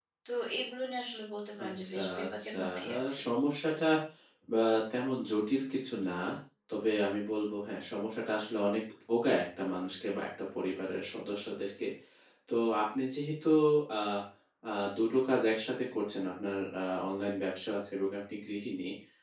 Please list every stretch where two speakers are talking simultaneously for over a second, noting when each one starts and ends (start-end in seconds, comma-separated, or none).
1.7-3.2